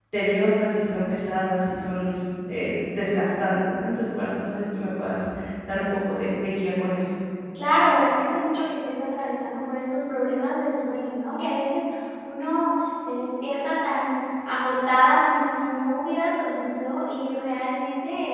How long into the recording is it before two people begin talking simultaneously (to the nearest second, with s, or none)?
none